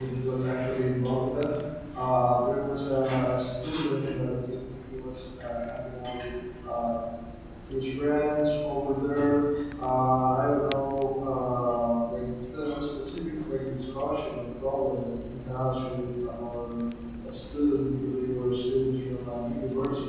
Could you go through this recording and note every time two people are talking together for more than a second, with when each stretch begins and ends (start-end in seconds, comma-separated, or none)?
none